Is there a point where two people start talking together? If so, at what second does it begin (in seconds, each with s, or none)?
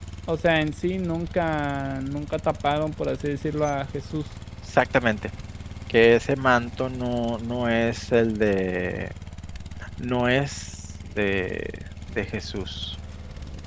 none